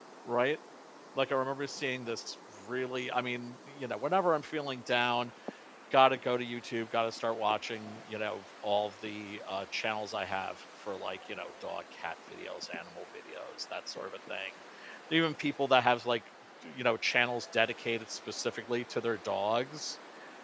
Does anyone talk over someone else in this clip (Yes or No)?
No